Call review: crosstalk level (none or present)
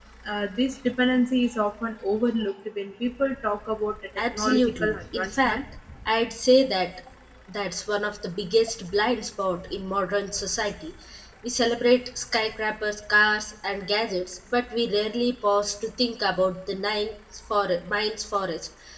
present